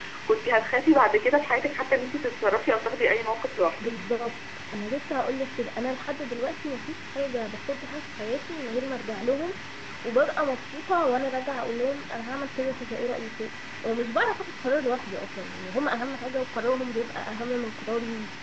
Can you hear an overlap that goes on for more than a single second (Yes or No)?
No